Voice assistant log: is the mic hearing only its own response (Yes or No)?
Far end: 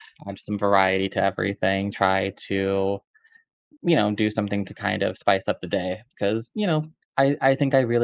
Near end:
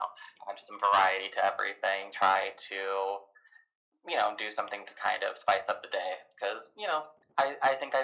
Yes